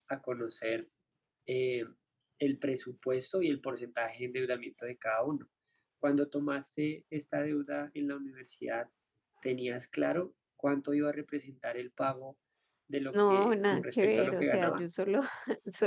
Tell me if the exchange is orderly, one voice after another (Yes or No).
No